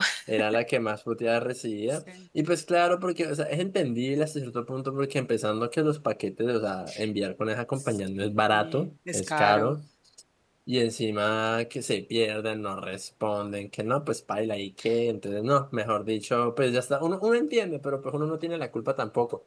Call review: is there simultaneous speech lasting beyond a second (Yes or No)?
Yes